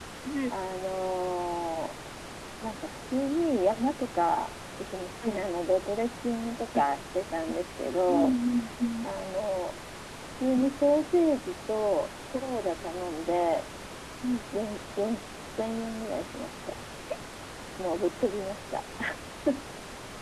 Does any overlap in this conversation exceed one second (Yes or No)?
No